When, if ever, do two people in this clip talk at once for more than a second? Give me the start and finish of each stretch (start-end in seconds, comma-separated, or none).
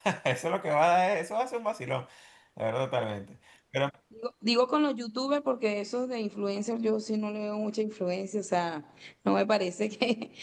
none